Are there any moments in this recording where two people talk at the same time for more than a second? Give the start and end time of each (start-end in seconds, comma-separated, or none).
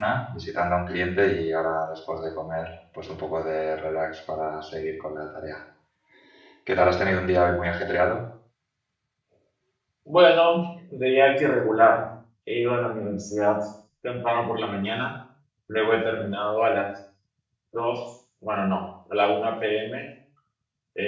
none